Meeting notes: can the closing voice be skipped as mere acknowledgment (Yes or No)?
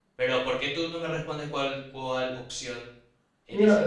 No